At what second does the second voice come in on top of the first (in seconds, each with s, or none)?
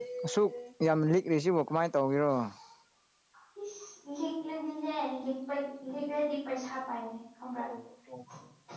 none